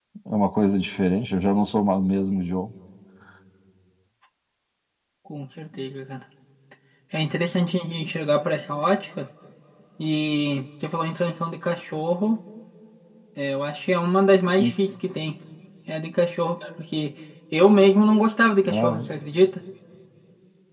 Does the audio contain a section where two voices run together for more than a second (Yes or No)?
No